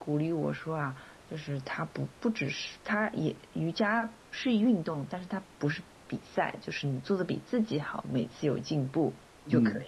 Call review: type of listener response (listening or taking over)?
taking over